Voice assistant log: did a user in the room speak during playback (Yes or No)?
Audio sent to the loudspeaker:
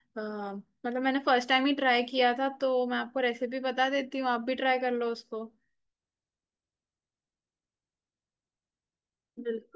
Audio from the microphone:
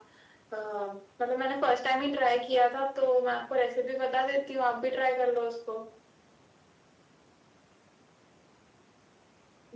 No